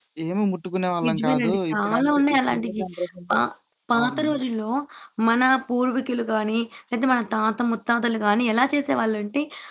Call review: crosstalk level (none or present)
present